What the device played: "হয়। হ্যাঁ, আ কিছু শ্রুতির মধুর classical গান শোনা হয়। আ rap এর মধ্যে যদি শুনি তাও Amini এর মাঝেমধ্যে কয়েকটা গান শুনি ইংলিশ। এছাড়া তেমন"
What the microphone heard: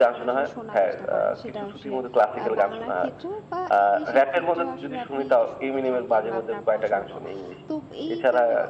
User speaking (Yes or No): Yes